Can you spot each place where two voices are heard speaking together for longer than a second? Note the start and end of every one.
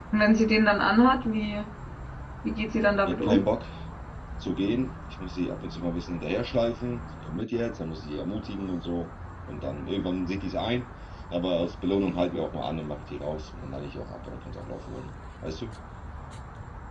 none

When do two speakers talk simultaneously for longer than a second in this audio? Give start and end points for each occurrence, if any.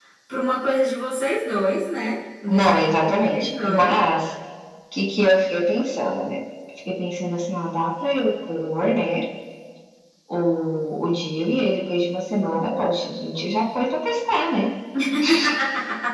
2.5-4.0

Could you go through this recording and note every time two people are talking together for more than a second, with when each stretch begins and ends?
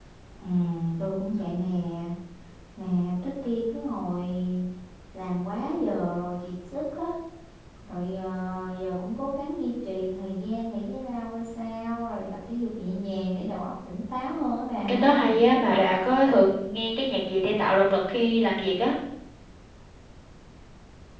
none

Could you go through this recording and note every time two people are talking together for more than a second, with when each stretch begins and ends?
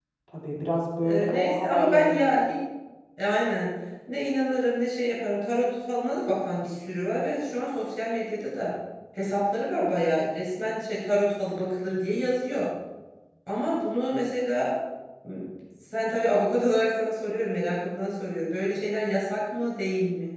1.0-2.4

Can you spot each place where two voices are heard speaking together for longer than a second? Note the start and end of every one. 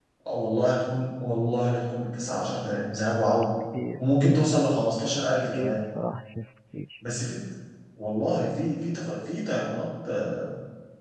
none

